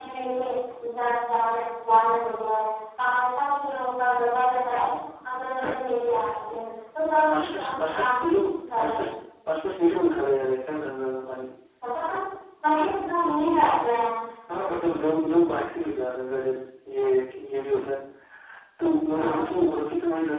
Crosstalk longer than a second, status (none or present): present